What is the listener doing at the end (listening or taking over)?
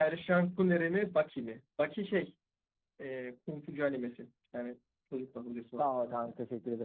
taking over